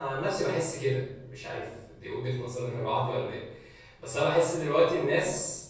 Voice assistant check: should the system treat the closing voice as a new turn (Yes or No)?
No